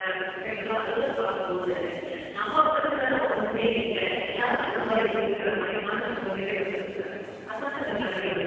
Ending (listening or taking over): taking over